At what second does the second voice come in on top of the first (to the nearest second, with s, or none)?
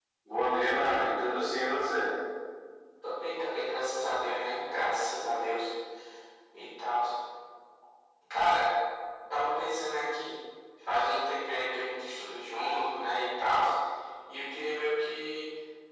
none